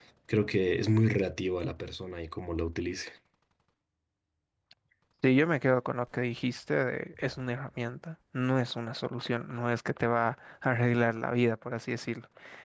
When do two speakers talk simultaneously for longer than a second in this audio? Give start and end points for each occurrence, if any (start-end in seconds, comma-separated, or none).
none